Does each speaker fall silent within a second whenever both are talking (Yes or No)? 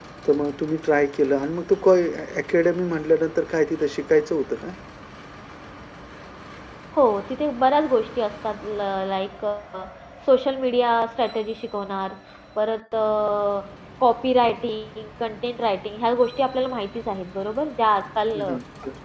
Yes